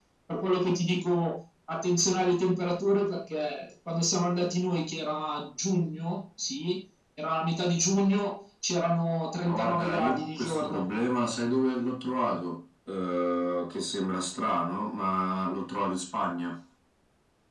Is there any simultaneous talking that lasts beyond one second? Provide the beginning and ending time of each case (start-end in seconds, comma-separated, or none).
9.4-10.8